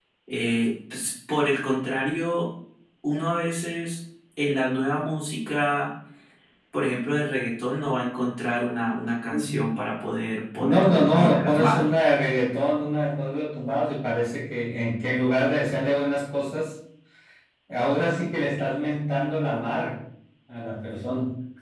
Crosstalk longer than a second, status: present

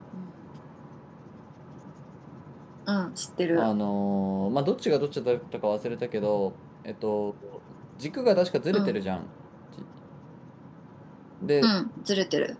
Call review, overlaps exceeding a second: none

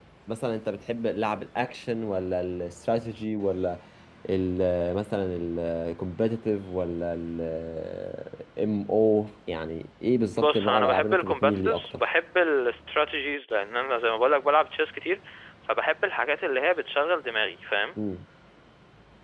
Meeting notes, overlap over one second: present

